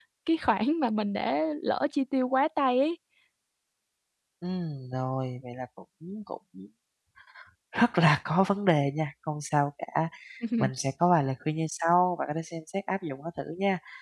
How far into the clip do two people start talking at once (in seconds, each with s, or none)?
none